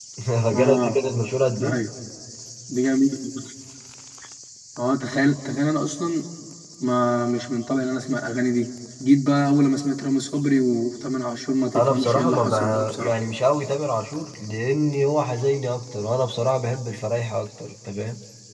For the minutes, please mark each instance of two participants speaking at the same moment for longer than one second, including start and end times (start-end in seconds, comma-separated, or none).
11.8-13.2